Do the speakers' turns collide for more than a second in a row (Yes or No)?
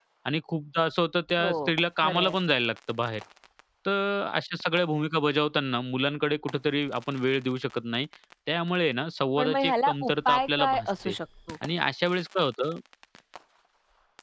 Yes